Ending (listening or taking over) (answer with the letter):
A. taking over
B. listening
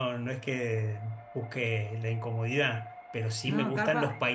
B